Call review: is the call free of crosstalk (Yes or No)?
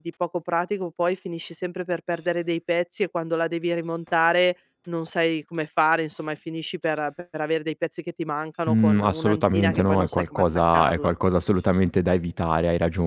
No